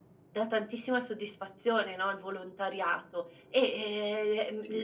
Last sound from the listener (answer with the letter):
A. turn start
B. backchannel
B